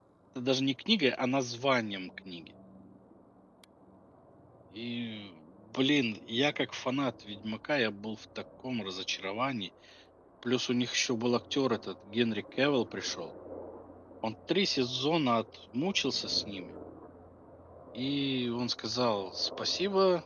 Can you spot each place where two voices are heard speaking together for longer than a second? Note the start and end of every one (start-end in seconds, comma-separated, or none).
none